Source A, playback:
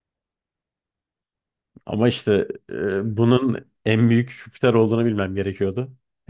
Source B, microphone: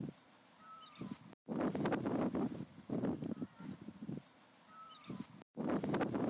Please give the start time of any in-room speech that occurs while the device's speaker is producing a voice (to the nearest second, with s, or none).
none